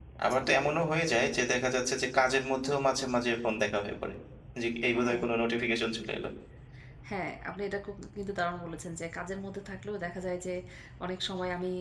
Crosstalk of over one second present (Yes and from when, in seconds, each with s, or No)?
No